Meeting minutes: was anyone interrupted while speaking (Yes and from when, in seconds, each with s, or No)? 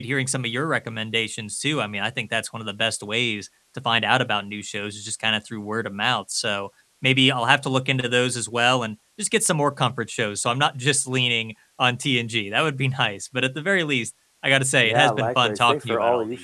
Yes, from 14.8 s